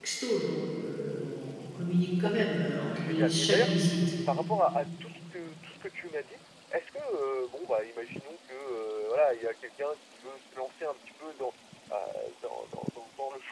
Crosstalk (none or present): present